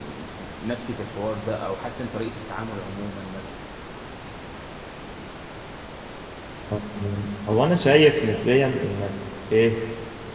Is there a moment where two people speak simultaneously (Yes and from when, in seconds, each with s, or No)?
No